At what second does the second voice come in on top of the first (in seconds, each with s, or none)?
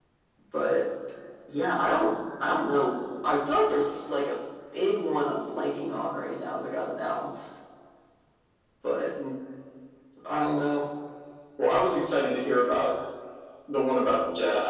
none